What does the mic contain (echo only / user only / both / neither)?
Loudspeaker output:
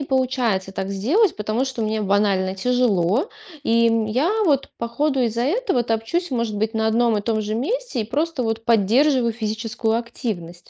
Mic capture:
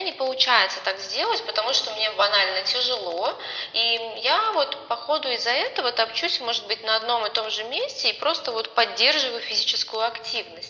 echo only